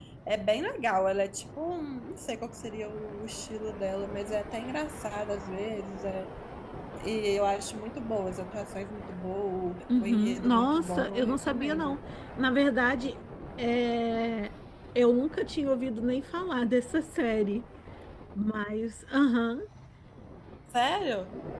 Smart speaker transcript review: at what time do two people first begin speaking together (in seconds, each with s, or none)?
9.9 s